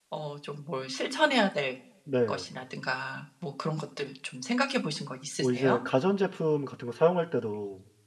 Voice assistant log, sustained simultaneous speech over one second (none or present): none